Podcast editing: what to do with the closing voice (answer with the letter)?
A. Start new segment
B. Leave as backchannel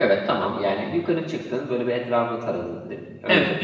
A